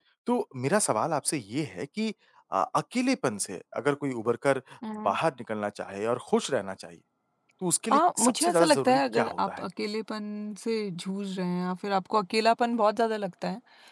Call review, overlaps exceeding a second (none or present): present